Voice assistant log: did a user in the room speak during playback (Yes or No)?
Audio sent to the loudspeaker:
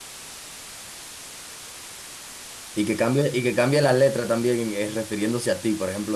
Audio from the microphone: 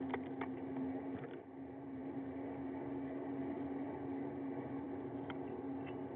No